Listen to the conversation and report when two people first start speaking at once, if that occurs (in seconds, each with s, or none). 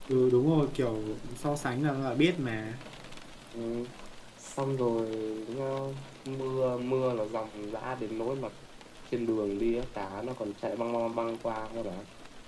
none